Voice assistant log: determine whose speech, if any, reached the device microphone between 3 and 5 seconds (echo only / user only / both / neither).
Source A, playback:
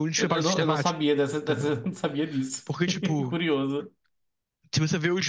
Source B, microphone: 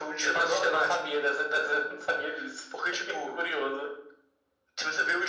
echo only